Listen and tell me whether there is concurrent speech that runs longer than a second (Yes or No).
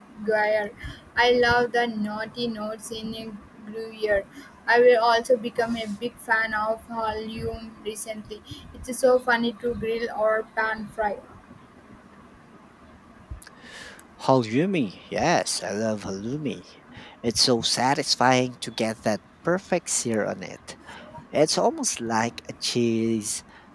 No